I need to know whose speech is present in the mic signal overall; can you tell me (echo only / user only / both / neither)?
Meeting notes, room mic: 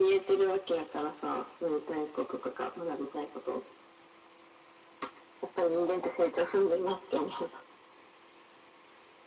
both